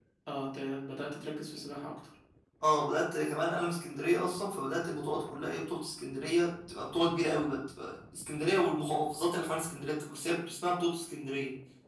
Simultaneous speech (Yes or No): No